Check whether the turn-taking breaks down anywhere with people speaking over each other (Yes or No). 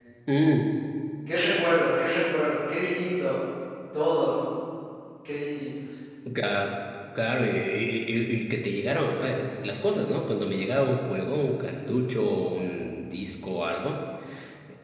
No